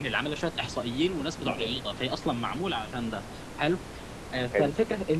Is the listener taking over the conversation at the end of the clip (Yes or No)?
No